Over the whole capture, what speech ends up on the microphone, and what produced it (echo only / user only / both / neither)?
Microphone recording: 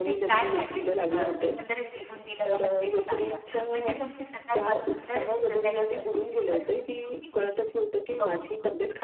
both